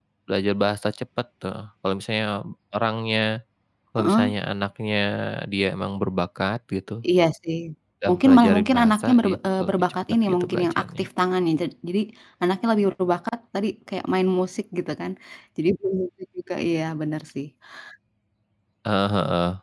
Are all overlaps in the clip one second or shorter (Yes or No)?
No